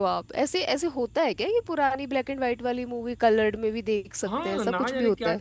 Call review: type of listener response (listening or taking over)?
taking over